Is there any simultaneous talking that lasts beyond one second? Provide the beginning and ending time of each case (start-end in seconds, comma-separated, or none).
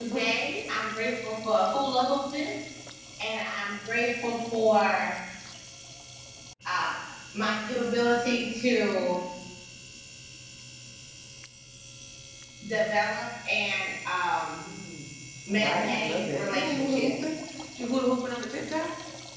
15.5-17.3